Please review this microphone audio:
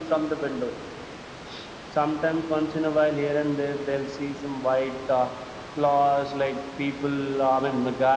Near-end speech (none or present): none